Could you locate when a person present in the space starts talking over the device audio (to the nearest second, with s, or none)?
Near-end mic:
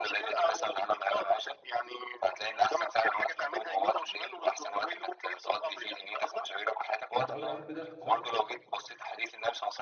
7 s